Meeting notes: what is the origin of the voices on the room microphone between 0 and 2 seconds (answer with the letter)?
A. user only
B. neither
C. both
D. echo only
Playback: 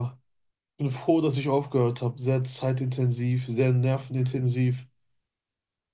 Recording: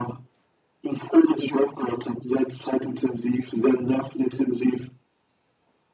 D